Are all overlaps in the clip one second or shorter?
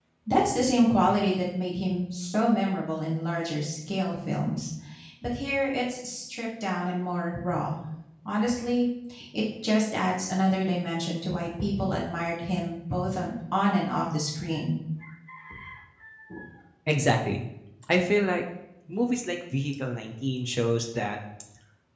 Yes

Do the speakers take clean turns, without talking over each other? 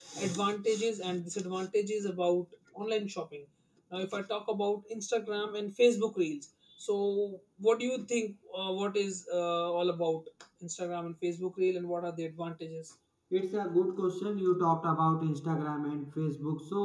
Yes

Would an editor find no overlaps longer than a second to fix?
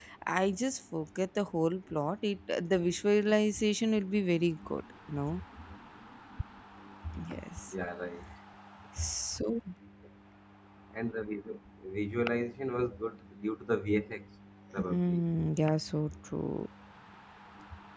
Yes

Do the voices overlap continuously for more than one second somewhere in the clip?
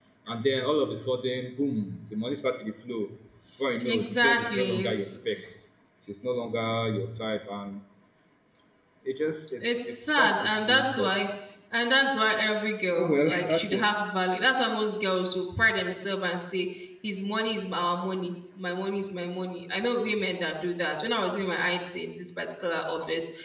Yes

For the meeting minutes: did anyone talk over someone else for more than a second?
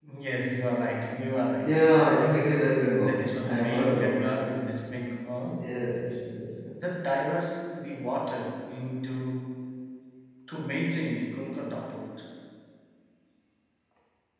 Yes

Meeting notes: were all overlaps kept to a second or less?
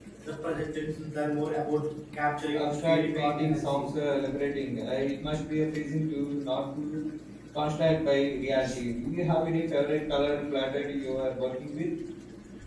No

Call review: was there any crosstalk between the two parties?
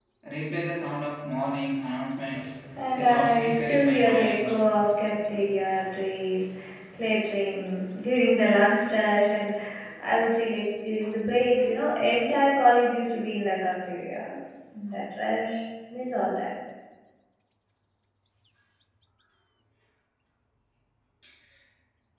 Yes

